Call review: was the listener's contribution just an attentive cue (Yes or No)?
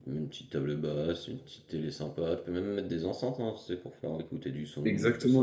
No